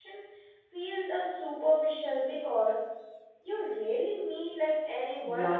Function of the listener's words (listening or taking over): taking over